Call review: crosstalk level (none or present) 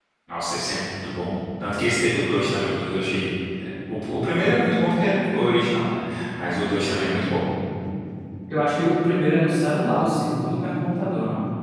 none